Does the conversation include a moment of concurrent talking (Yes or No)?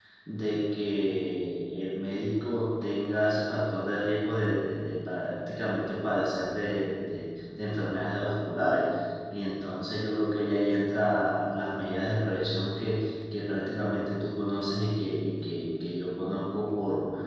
No